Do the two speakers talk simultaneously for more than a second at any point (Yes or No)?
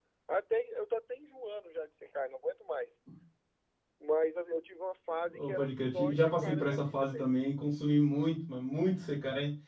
Yes